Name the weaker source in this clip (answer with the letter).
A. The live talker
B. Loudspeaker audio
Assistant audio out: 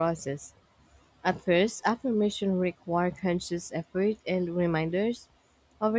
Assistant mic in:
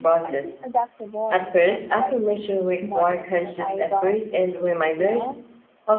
A